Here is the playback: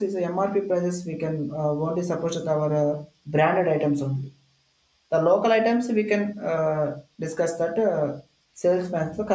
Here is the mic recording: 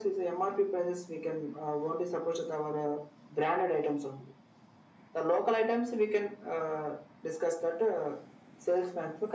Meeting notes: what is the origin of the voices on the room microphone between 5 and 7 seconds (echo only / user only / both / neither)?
echo only